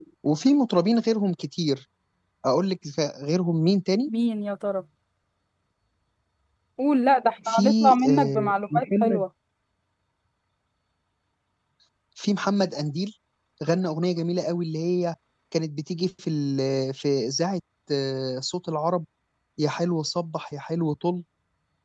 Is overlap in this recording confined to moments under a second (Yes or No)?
No